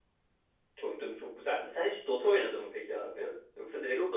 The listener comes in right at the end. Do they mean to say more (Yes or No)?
Yes